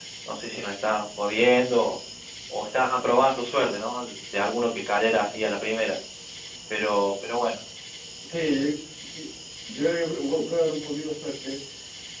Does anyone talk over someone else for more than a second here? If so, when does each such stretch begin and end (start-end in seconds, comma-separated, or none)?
none